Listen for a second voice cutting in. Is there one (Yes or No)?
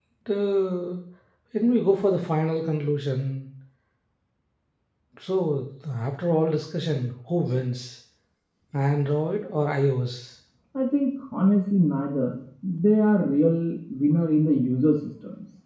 No